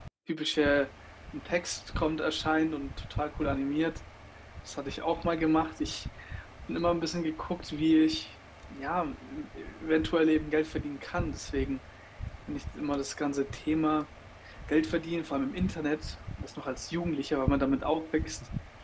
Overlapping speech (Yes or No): No